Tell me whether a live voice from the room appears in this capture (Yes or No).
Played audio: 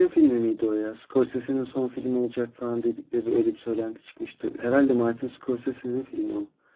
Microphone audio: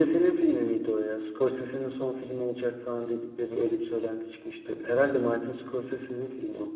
No